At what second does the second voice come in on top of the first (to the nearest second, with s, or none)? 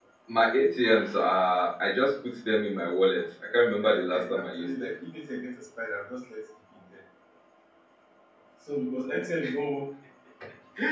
4 s